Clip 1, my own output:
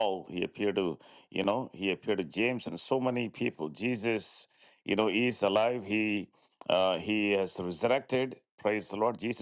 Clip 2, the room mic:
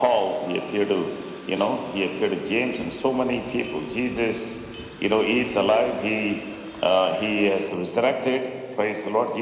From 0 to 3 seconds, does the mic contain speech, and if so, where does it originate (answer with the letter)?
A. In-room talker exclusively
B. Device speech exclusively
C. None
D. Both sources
B